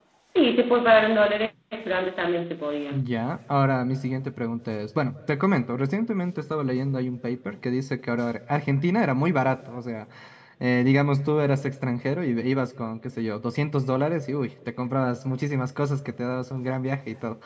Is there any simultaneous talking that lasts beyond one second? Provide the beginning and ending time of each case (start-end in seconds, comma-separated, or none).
none